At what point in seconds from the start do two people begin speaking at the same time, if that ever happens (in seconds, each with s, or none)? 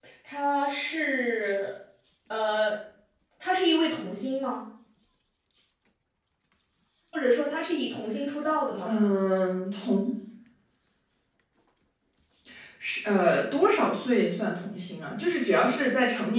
none